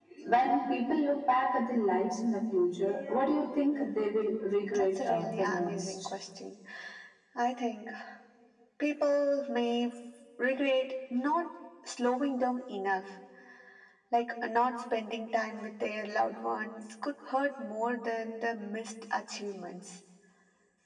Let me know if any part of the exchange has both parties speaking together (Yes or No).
Yes